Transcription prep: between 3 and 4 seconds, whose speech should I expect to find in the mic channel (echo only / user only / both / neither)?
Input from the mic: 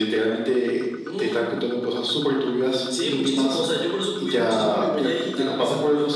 echo only